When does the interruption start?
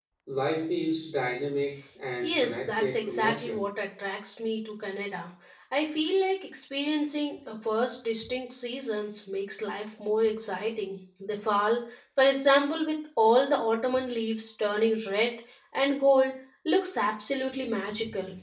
2.2 s

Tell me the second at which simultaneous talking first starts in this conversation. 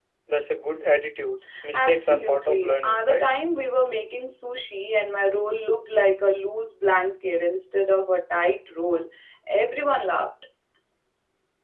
1.7 s

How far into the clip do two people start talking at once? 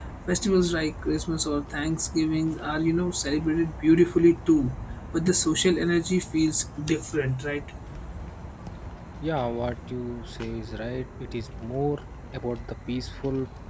none

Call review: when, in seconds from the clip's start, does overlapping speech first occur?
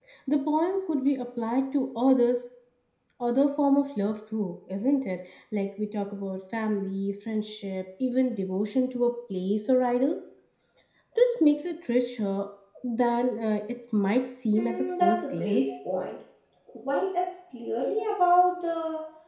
14.5 s

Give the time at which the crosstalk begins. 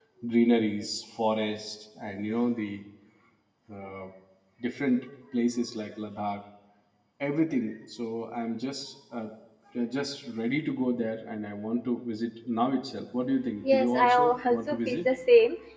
13.6 s

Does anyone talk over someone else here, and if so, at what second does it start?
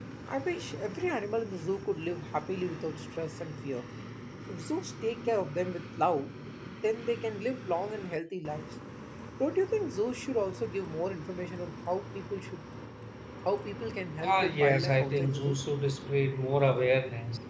14.2 s

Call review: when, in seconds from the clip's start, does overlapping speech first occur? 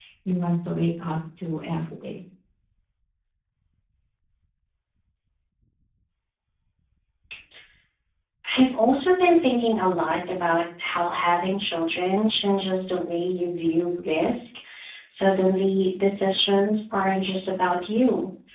none

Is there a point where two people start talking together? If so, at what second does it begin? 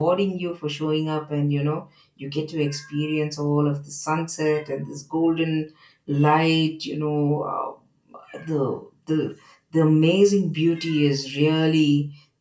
none

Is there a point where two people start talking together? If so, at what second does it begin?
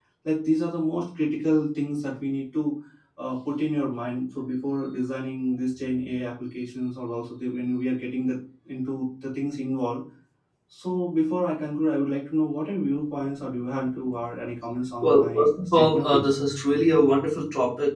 15.0 s

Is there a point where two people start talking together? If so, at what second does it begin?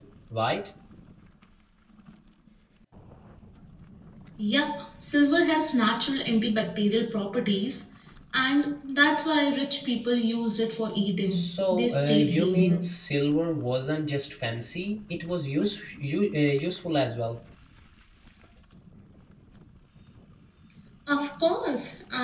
11.3 s

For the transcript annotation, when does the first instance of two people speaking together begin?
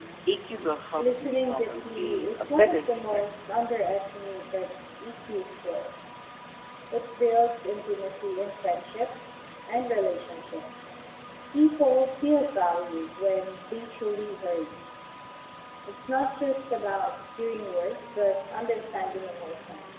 1.0 s

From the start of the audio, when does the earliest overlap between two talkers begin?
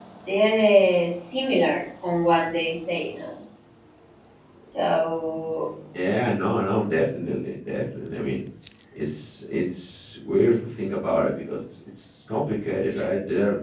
none

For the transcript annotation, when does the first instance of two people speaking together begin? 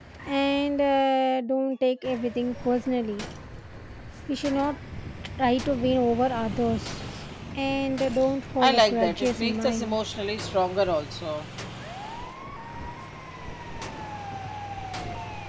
8.6 s

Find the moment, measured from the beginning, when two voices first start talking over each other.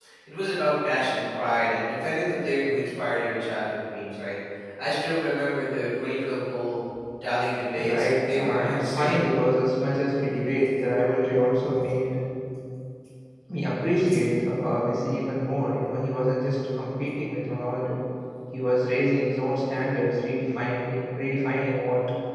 7.9 s

